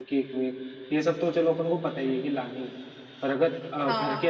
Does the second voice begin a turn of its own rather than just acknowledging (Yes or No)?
No